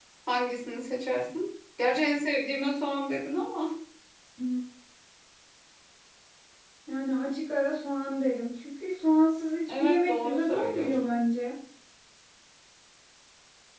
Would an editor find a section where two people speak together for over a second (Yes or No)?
Yes